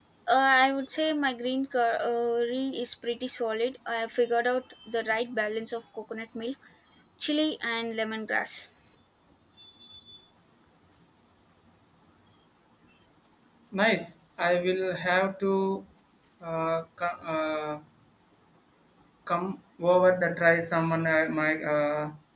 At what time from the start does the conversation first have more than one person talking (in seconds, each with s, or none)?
none